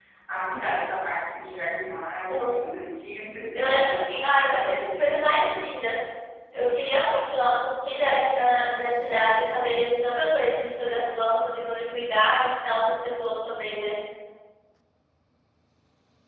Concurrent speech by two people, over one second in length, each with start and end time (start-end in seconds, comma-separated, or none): 3.5-5.3